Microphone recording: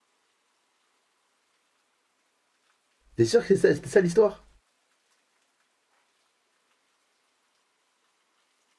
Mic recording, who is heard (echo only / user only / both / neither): user only